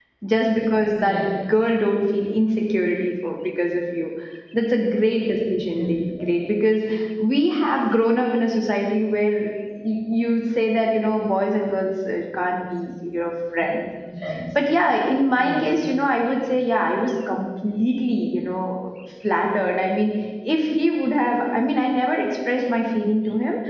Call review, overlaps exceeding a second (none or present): none